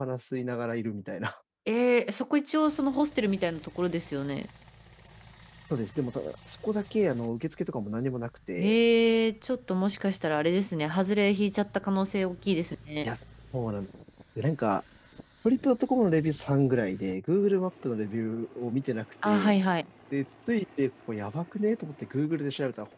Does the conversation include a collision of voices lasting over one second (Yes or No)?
No